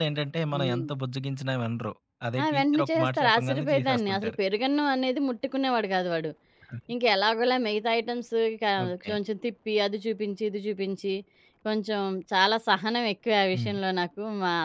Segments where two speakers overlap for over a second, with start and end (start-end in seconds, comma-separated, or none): 2.4-4.3